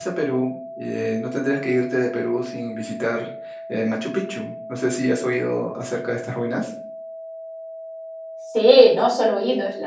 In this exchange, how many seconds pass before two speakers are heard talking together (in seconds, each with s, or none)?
none